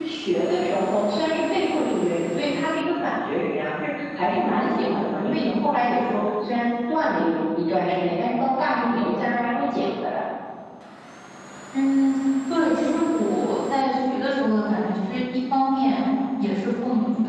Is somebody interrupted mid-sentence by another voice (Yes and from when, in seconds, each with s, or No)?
No